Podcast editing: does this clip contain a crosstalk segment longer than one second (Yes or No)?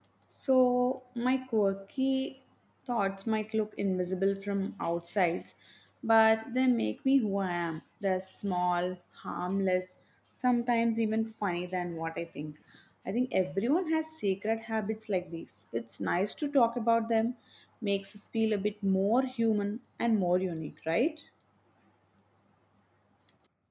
No